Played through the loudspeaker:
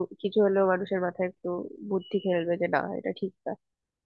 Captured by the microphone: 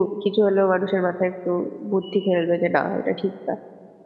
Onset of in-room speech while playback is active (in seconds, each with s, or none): none